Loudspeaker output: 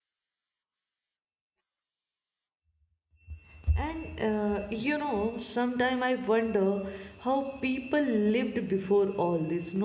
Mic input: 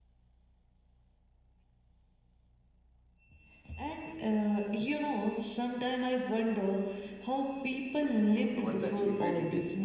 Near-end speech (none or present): present